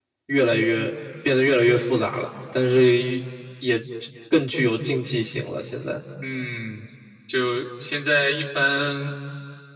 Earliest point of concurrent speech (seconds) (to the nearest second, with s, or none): none